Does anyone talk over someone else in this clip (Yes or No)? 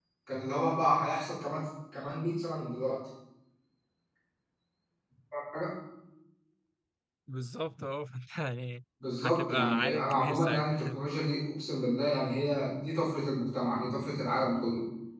Yes